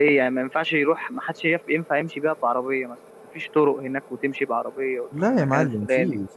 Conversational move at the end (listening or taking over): taking over